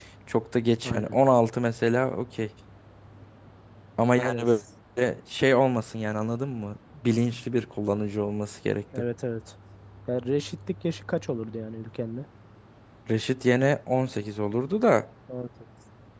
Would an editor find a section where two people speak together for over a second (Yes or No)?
No